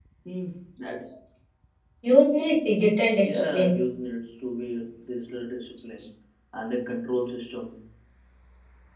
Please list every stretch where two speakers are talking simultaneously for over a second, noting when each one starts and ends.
none

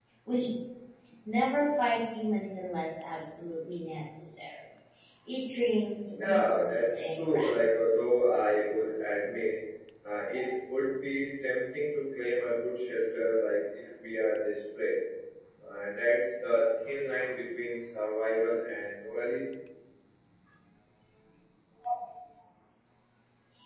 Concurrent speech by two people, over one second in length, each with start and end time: 6.2-7.6

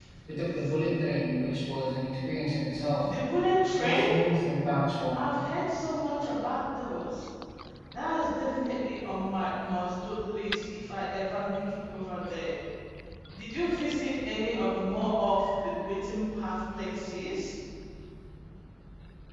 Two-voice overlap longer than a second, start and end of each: none

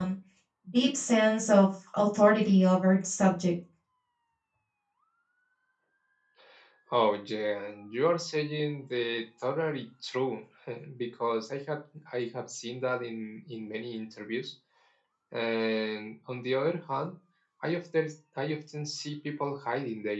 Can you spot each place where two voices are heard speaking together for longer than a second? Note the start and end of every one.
none

